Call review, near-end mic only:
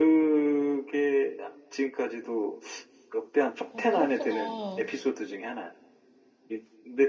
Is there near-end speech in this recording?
Yes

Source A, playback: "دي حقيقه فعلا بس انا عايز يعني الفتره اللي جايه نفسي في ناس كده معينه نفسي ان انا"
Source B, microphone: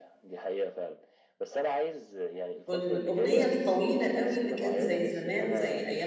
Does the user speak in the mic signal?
Yes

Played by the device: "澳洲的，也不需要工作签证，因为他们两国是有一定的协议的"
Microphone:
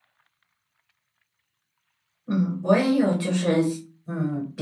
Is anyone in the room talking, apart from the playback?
Yes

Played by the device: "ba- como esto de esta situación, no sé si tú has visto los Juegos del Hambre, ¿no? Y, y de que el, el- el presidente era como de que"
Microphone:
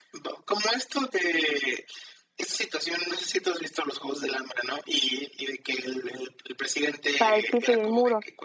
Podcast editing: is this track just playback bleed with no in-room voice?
No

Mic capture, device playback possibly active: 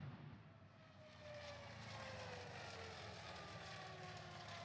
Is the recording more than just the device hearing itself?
No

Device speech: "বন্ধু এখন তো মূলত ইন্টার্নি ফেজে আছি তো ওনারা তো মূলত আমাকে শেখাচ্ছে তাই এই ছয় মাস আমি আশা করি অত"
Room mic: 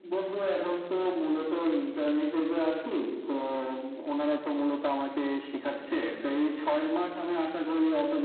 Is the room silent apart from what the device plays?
Yes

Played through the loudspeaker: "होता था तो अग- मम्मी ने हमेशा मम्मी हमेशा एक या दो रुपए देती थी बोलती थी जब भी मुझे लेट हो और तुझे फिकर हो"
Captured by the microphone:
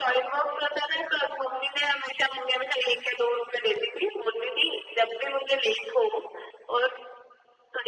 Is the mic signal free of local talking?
Yes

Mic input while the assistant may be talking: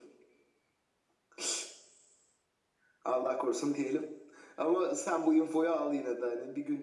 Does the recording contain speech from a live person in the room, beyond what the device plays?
No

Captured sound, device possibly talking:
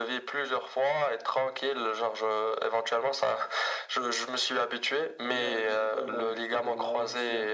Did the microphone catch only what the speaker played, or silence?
No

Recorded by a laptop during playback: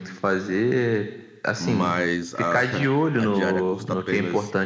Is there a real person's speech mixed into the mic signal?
Yes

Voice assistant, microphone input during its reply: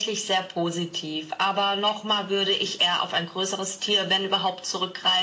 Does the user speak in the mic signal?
No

